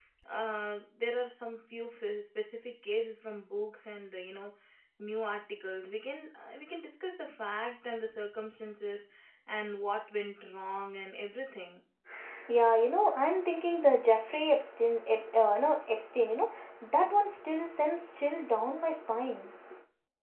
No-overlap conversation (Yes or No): Yes